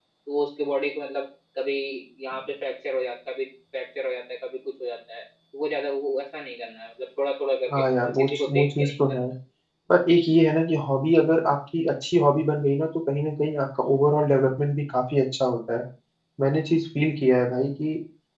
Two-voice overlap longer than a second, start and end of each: 7.7-9.2

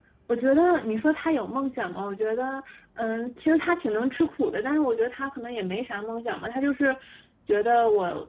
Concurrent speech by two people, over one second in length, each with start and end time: none

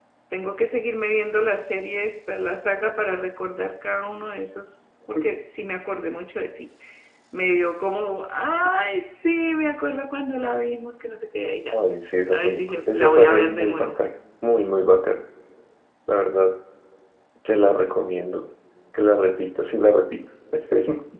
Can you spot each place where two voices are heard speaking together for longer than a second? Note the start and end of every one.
12.3-13.9

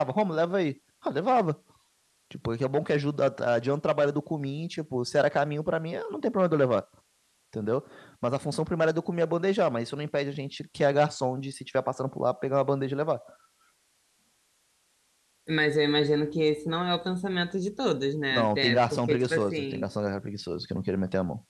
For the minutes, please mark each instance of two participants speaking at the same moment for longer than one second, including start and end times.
18.3-19.9

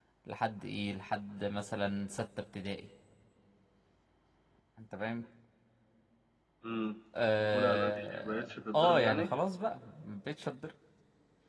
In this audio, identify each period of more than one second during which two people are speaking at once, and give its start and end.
7.5-9.3

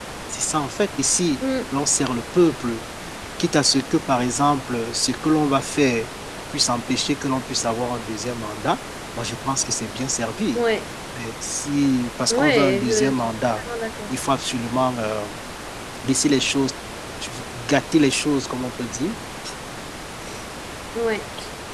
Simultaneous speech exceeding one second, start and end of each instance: 12.3-13.6

